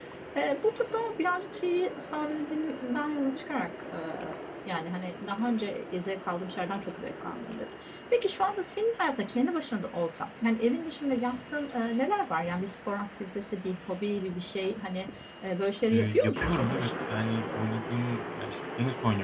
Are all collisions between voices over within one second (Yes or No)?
No